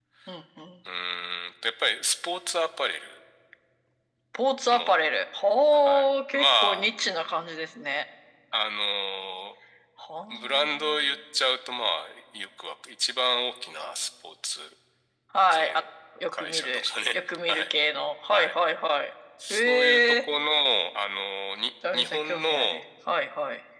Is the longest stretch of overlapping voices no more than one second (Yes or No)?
No